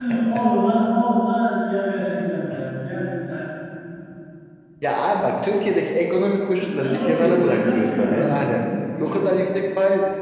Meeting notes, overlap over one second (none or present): present